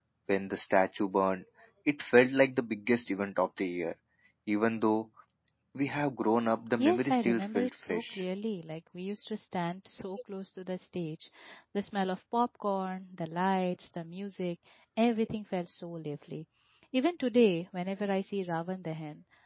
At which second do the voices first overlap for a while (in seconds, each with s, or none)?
6.8 s